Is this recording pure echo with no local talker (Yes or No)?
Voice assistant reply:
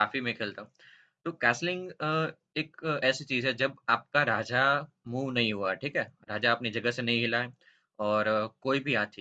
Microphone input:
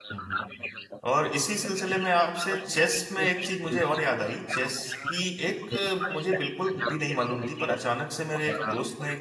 No